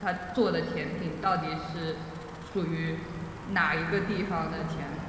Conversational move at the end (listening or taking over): taking over